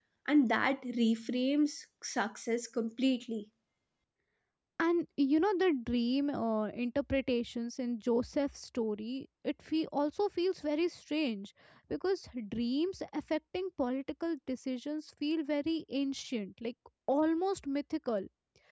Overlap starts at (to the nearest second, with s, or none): none